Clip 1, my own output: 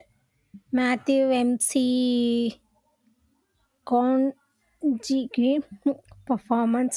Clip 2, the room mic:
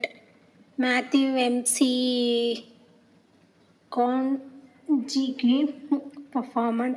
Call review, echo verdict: present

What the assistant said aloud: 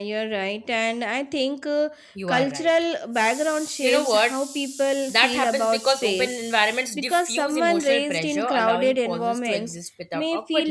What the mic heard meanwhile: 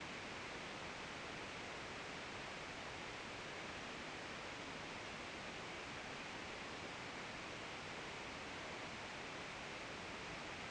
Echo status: none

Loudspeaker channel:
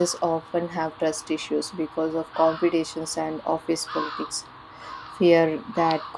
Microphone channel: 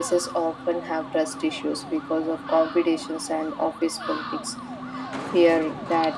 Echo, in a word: present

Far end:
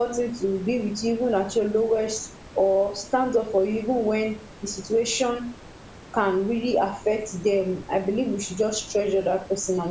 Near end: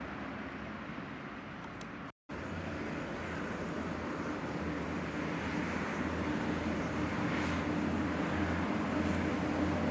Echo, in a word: none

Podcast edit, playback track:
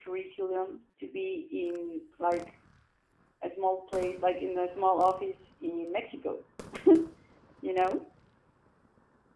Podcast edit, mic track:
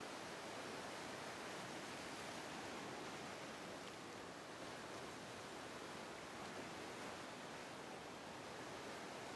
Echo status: none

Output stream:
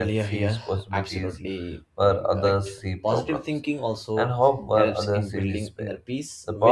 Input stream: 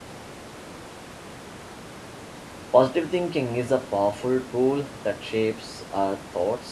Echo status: none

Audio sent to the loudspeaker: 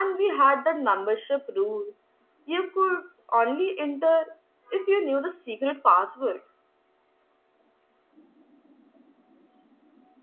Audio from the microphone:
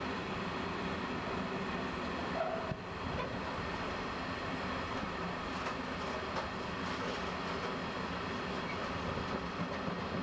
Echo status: none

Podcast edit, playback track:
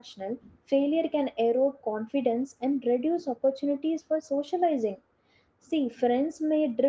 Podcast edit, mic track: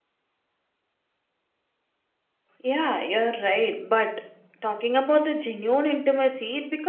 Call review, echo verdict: none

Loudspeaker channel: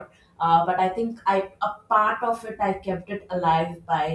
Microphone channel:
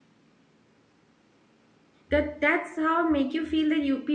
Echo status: none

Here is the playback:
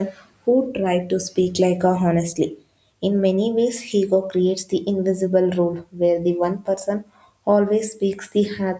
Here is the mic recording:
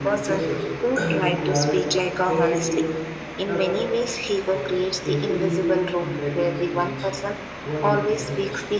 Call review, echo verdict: present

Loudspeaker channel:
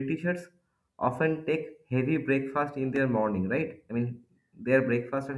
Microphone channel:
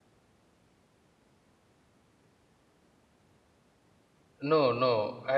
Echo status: none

